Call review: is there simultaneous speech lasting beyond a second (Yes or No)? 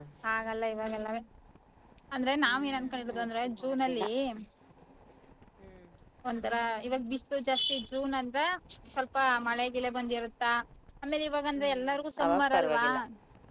Yes